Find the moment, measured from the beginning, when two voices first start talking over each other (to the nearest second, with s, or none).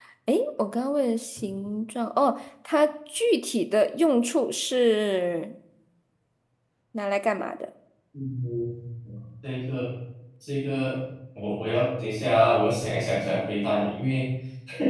none